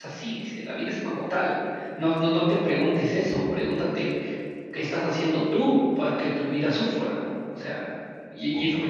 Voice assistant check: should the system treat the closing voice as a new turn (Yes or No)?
No